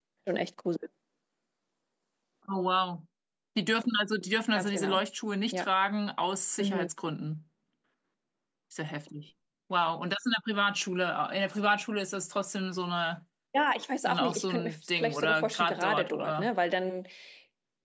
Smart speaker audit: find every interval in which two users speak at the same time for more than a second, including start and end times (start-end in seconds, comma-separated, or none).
14.1-16.5